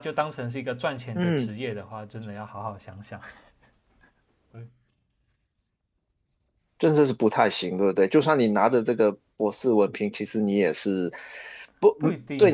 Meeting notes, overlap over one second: none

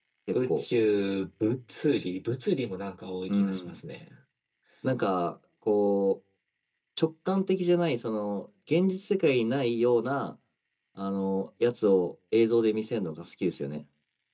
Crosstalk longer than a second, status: none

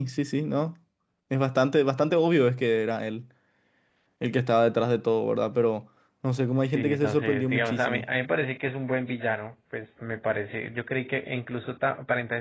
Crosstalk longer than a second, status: present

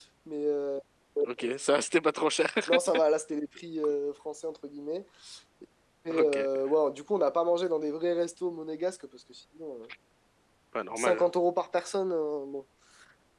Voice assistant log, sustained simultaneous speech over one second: none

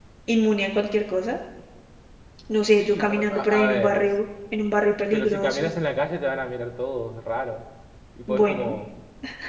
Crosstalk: present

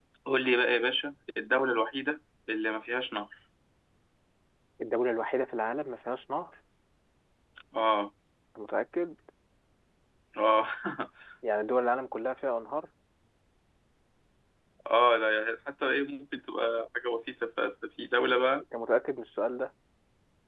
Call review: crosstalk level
none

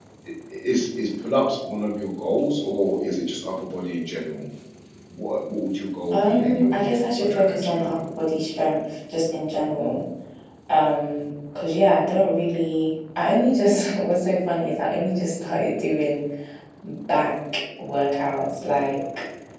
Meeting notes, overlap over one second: present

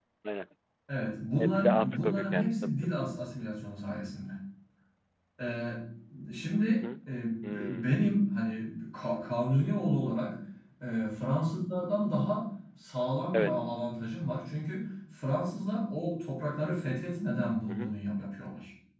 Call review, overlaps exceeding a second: present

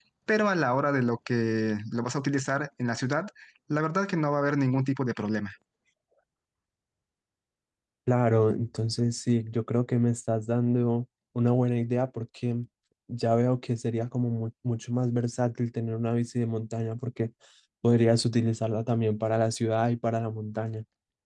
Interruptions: none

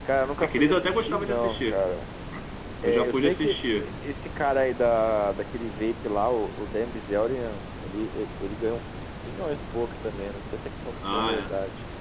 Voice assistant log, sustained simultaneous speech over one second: present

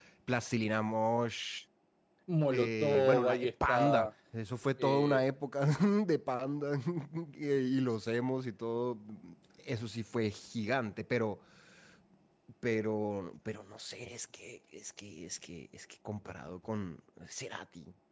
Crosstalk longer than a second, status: present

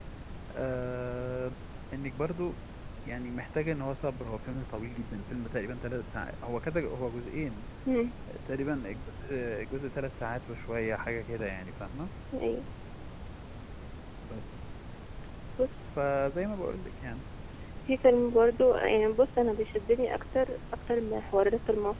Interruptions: none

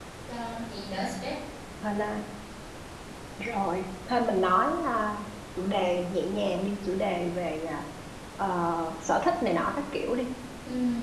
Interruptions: none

